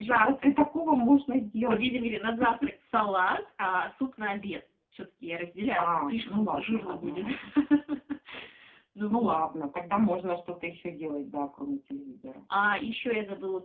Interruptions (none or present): present